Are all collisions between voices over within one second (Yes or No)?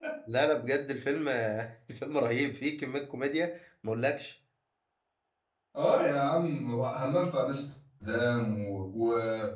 Yes